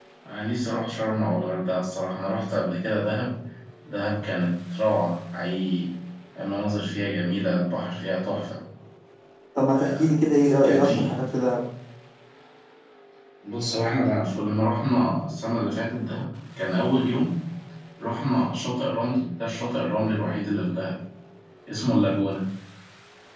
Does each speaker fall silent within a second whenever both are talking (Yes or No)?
Yes